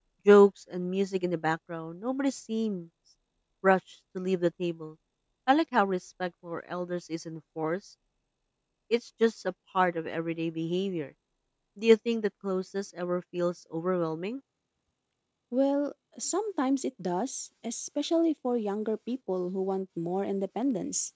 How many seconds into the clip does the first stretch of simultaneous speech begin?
none

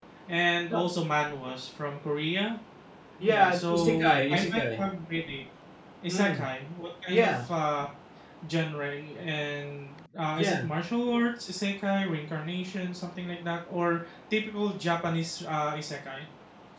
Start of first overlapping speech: 3.3 s

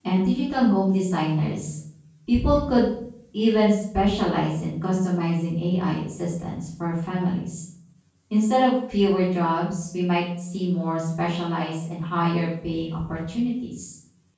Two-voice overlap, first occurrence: none

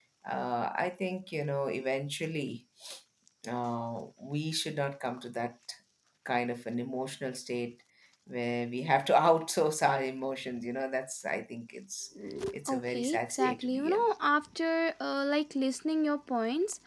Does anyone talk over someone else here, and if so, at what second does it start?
12.7 s

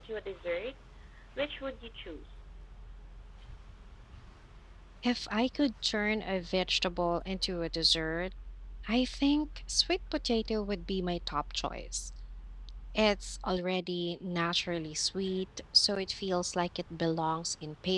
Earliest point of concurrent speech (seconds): none

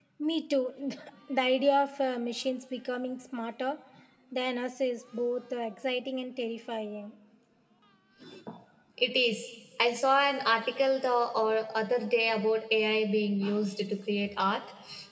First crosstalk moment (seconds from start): none

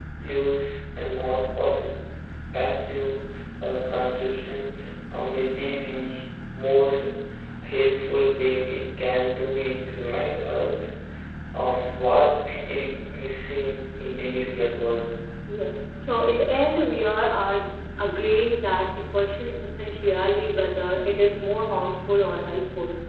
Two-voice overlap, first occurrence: none

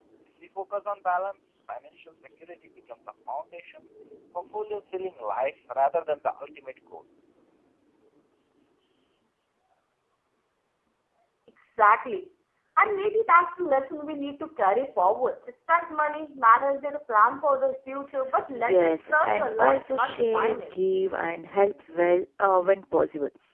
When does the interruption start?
18.5 s

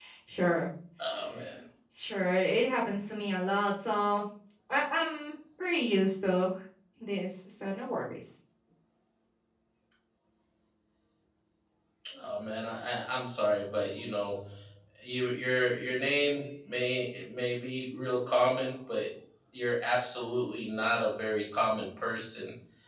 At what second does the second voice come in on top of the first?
none

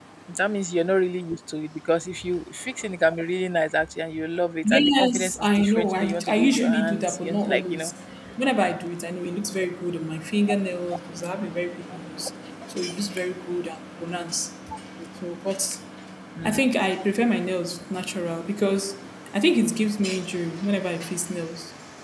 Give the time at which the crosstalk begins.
4.6 s

